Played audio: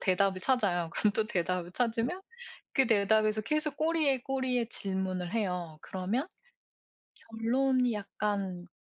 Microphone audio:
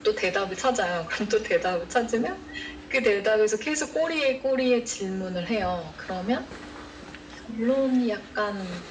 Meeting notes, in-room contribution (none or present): none